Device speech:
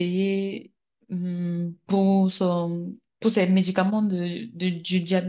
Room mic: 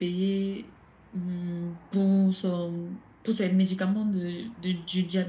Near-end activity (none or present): none